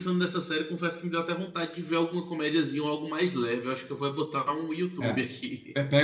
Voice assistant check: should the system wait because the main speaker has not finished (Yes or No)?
No